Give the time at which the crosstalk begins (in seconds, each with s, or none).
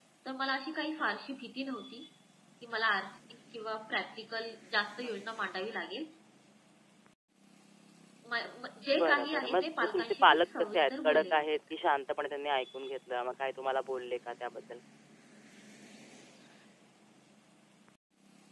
9.0 s